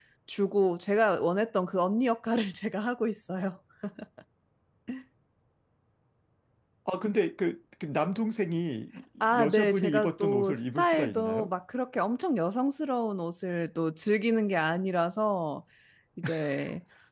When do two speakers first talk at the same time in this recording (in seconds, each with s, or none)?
9.4 s